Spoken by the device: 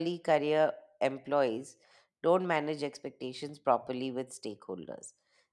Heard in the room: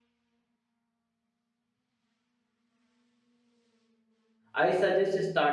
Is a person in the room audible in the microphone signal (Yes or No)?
Yes